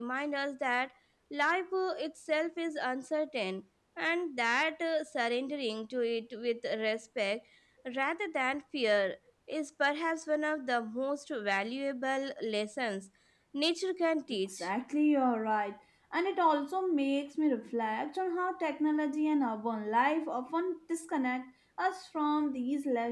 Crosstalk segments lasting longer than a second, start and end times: none

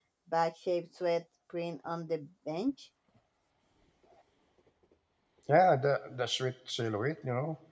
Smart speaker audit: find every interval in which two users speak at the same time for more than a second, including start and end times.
none

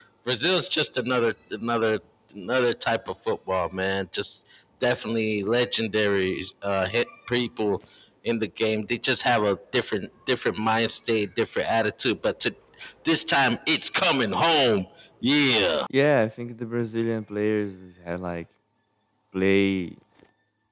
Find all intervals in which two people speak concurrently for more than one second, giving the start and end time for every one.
none

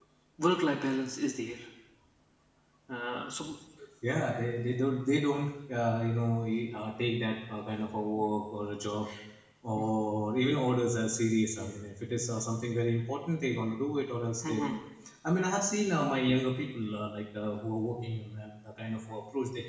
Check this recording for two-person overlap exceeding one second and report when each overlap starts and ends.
none

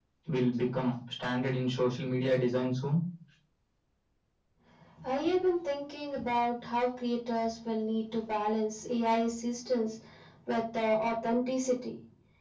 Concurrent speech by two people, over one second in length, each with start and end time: none

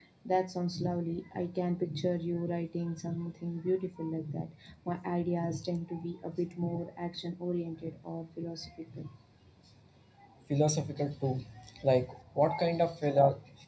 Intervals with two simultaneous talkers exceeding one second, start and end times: none

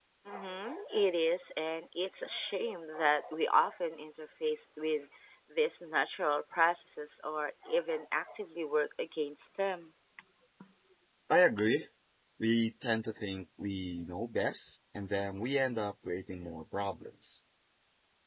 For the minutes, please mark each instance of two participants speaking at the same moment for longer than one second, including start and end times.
none

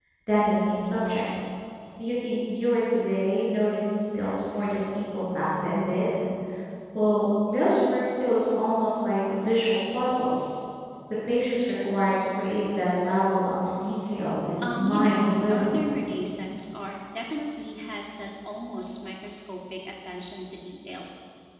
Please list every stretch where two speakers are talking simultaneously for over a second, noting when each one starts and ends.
14.8-16.0

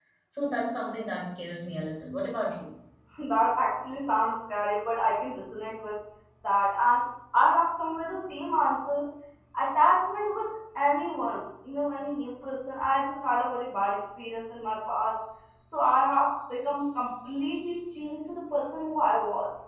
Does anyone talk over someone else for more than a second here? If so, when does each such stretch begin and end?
none

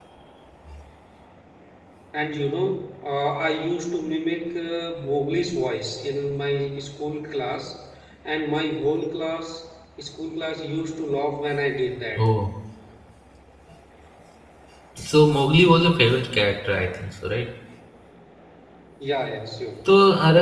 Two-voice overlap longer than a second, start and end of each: none

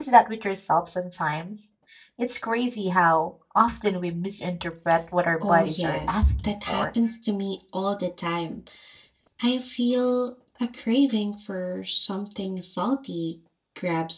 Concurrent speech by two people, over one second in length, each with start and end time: 5.4-6.8

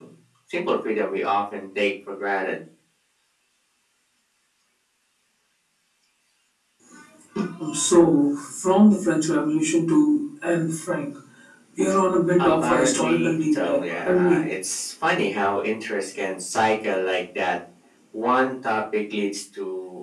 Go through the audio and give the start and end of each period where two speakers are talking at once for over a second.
12.4-14.4

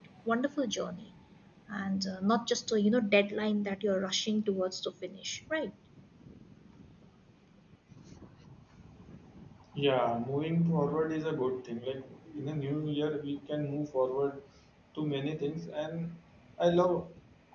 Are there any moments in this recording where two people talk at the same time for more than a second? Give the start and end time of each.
none

